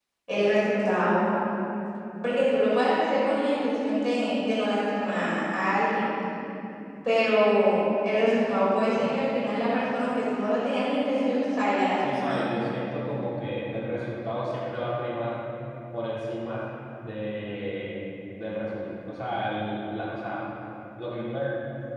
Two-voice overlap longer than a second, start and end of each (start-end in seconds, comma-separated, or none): none